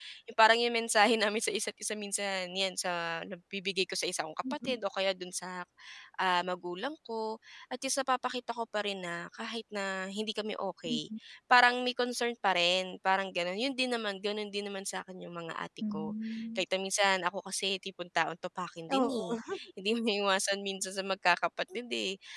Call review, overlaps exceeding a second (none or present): none